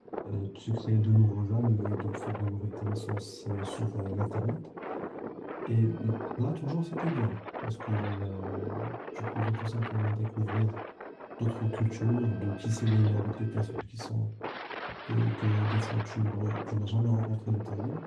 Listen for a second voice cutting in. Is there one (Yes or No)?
No